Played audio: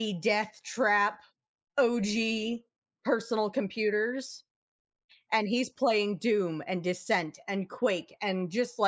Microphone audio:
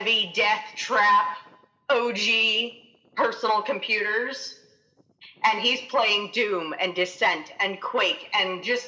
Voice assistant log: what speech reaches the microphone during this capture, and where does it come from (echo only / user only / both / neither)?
echo only